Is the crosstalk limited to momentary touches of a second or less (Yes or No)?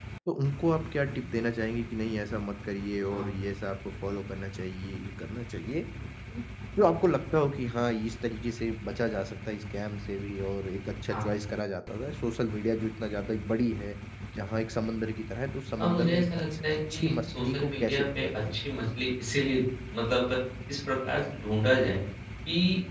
No